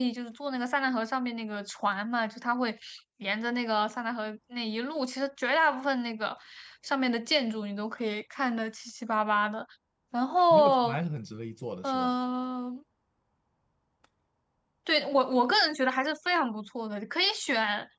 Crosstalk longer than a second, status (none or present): none